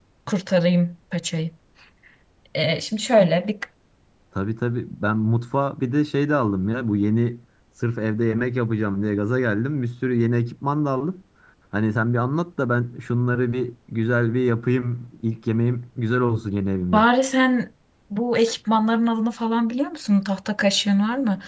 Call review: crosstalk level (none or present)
none